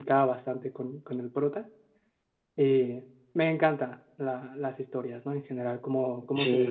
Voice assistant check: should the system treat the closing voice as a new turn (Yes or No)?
No